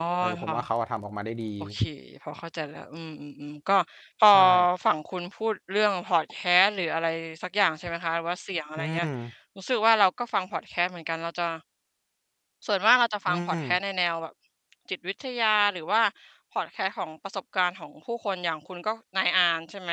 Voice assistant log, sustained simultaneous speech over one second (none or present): none